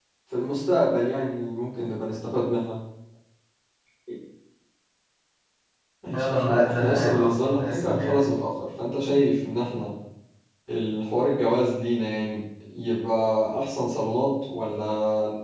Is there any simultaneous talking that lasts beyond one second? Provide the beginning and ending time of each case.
6.1-8.3

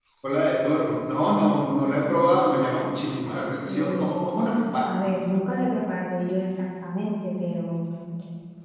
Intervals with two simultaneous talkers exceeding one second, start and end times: 3.7-5.0

